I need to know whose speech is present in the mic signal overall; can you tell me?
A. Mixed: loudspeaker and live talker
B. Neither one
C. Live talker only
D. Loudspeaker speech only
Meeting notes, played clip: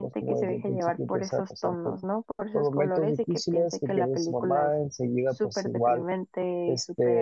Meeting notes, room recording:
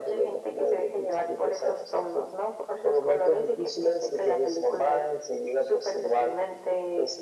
D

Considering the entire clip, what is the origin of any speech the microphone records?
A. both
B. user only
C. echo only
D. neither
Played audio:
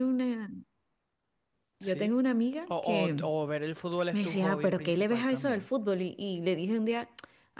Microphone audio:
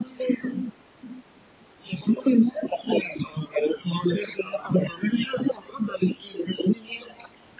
C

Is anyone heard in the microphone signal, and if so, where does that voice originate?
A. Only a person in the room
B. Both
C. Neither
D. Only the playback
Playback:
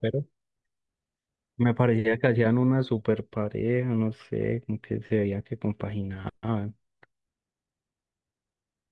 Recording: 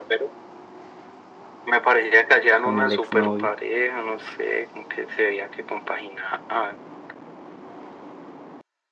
B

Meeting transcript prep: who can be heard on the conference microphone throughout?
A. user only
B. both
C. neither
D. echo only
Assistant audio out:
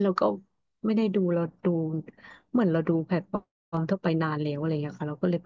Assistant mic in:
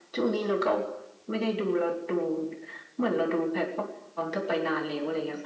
D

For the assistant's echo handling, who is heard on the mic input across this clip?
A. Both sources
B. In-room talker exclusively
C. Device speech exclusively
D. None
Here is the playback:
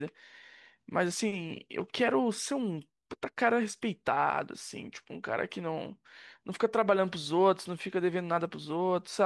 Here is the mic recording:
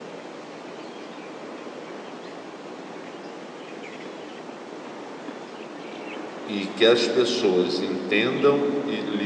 B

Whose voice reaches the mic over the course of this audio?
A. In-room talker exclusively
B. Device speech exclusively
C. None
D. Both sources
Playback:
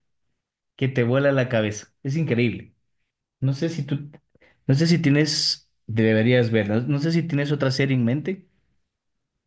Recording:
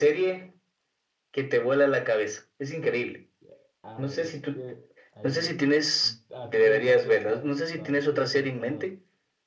D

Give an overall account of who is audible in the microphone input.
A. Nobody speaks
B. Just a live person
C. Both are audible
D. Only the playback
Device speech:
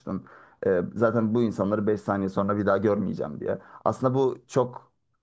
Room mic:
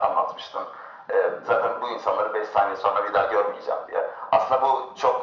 D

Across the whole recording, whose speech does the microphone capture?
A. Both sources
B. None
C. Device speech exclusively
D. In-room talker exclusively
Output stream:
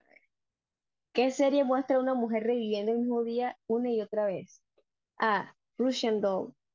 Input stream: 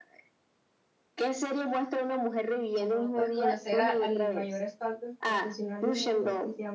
A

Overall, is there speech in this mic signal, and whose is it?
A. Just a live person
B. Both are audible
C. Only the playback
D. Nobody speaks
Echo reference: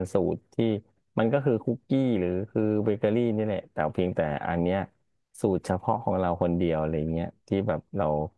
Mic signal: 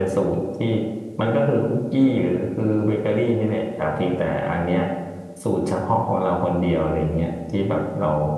C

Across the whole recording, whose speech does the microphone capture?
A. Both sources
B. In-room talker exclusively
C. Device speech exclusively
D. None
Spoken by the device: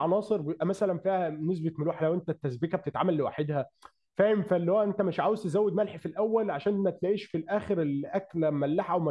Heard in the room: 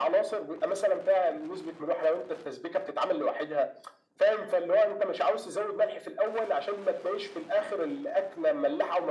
C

